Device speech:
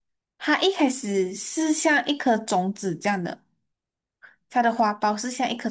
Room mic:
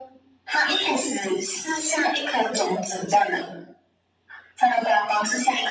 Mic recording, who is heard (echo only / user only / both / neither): echo only